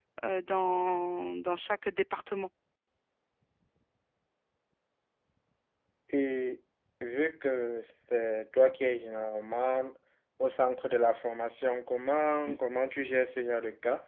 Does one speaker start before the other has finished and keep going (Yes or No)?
No